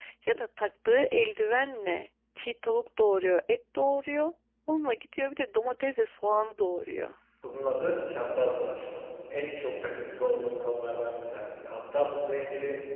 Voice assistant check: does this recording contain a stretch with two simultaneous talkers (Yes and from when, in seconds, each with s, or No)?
No